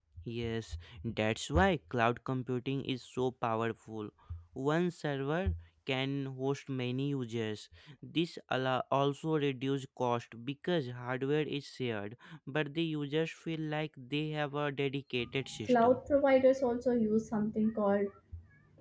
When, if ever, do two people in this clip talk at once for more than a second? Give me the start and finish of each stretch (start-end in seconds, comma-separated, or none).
none